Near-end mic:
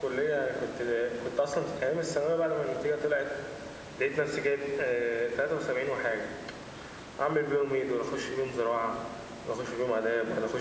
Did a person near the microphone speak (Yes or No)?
Yes